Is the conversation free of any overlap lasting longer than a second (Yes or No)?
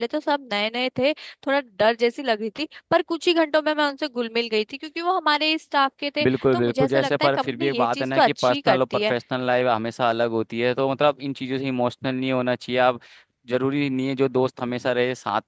No